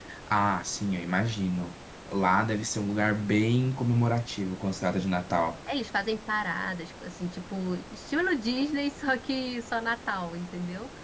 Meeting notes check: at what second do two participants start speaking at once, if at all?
none

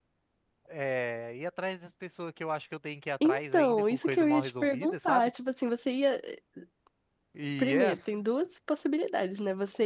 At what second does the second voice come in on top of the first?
3.2 s

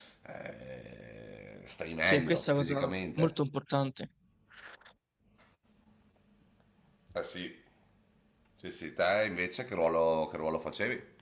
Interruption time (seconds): 2.0 s

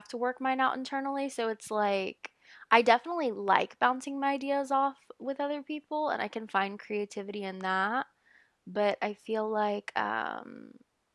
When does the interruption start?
none

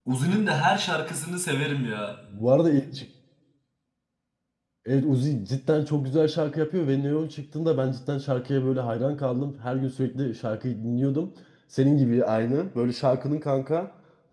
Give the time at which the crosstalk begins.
none

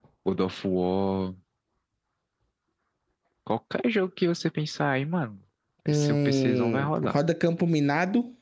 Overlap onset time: 5.9 s

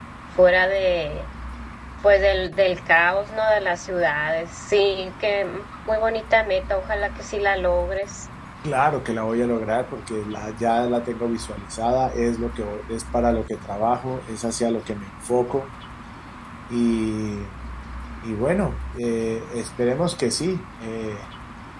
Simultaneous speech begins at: none

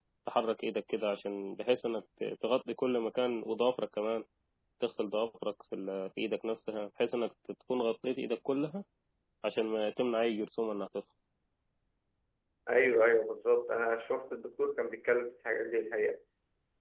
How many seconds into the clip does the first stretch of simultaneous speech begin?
none

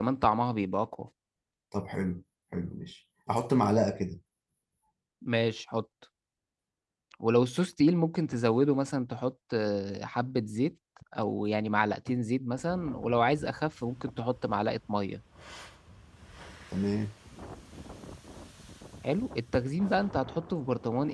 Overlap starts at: none

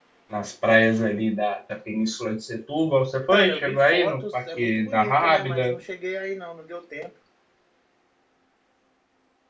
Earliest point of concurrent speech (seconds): 3.3 s

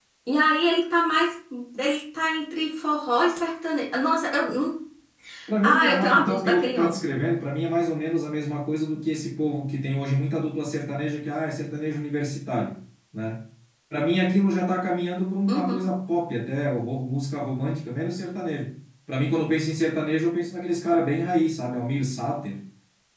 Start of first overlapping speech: 5.6 s

